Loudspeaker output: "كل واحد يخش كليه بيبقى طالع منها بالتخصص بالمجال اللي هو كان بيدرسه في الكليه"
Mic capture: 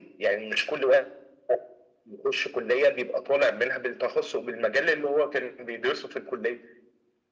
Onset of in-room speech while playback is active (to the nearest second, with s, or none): none